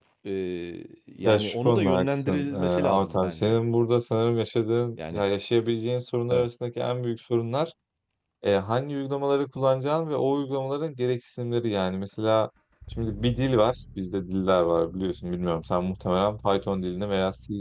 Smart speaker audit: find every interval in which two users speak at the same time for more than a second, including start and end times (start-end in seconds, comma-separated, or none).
1.2-3.6